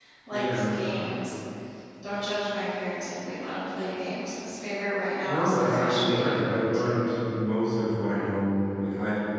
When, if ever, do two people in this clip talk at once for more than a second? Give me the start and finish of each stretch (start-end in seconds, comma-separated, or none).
5.2-6.6